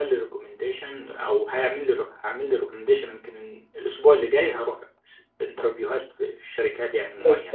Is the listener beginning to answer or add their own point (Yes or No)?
Yes